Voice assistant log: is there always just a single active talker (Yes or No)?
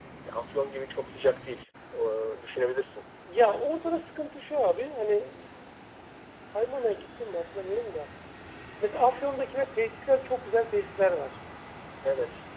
Yes